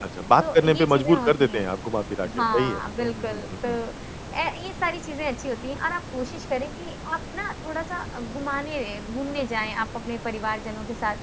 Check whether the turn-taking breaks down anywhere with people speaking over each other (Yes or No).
Yes